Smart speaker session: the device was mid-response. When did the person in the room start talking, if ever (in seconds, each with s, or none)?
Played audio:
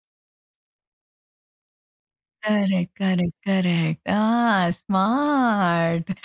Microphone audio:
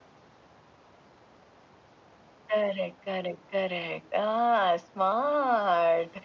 none